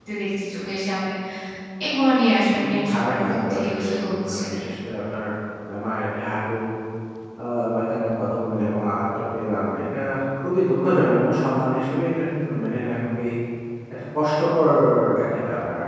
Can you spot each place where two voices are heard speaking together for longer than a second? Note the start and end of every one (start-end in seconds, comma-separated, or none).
2.5-4.4